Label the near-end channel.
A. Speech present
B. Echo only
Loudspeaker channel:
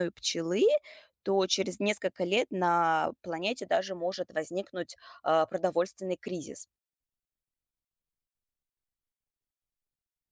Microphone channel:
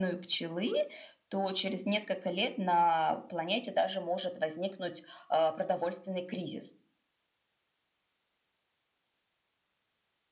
B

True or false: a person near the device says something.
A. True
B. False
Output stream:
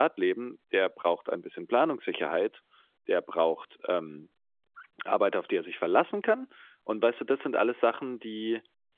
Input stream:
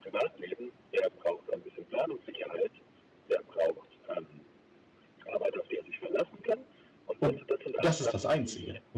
A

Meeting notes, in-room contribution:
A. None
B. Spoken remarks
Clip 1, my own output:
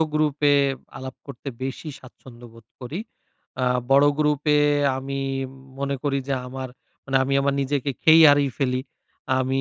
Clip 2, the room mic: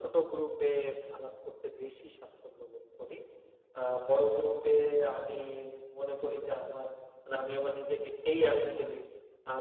A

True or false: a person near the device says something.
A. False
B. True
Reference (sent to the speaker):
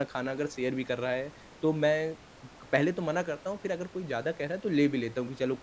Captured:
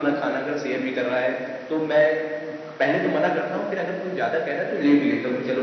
A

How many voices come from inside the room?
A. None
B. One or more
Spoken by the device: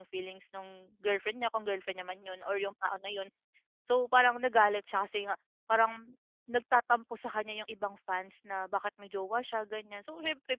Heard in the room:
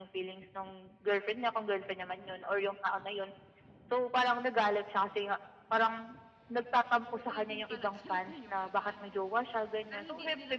B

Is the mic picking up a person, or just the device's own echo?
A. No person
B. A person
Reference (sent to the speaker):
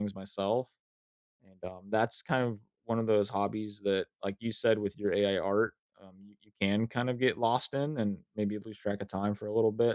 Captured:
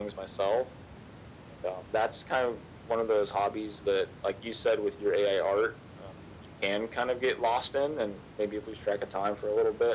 A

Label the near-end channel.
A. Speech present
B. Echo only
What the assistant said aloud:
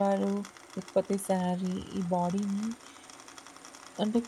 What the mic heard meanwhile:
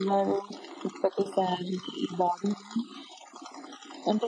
B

